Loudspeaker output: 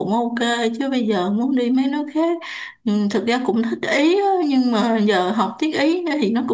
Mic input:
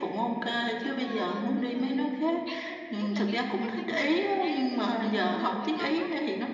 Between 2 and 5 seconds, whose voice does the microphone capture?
both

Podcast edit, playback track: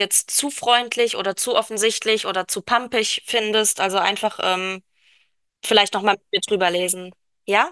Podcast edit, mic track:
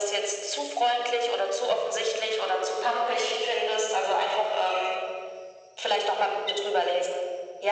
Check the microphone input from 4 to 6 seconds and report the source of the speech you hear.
echo only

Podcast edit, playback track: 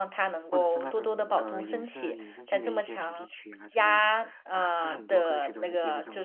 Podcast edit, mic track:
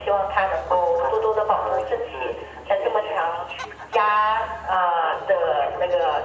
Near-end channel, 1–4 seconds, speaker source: echo only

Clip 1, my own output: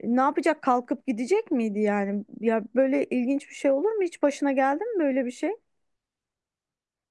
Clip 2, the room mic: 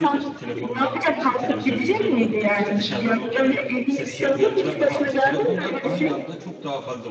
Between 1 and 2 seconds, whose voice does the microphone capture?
both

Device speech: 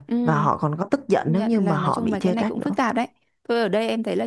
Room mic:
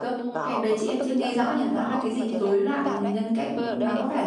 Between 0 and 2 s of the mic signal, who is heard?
both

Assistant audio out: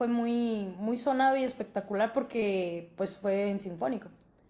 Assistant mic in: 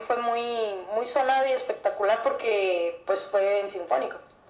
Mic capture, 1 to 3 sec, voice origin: echo only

